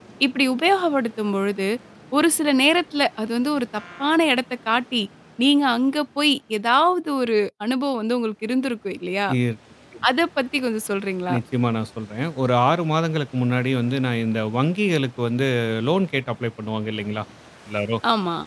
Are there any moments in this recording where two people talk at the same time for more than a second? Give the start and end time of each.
none

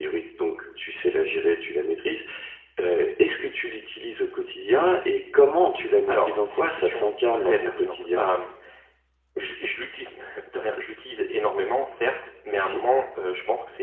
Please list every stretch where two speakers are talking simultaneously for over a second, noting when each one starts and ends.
6.1-8.2

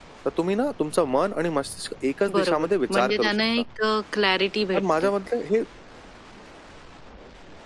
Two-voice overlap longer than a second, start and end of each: 2.3-3.6

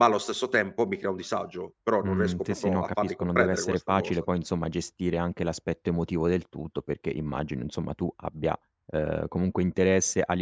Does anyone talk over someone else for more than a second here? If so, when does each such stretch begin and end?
2.0-4.1

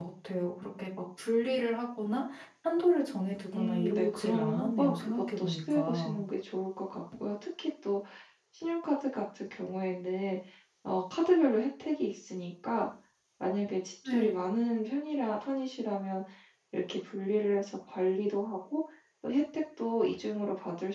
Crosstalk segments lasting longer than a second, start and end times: 3.5-6.2

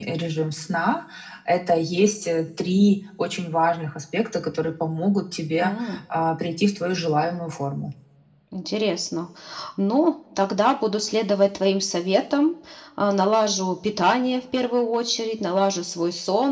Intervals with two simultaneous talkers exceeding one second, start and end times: none

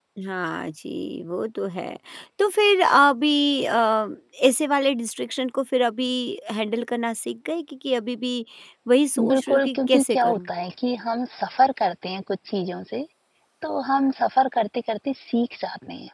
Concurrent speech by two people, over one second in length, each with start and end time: 9.3-10.5

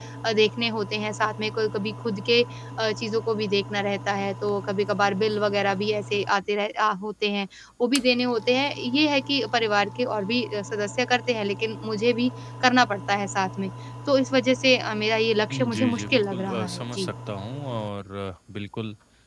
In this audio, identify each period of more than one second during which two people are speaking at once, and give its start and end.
15.5-17.1

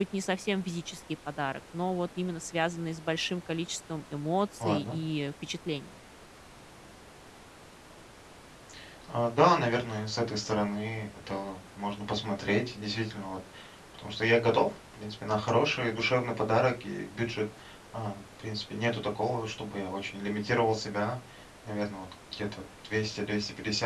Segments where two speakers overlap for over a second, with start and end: none

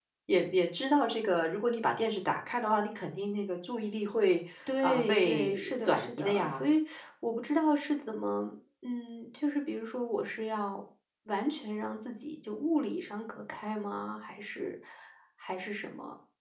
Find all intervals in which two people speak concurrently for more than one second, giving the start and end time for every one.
4.8-6.7

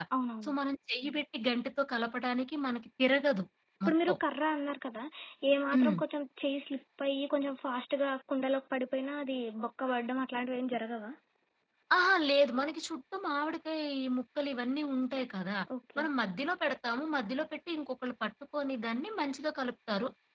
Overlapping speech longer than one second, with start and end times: none

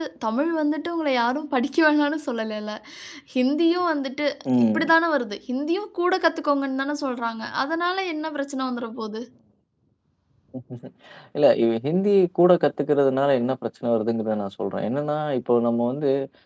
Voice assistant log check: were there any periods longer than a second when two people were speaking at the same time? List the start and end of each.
none

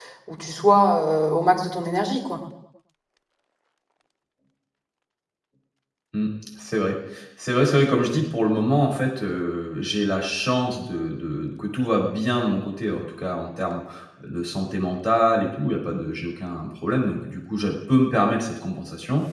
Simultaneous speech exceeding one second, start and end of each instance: none

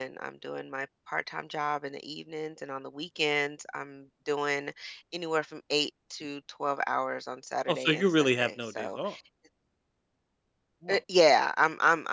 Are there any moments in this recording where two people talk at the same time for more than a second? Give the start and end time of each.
7.7-9.0

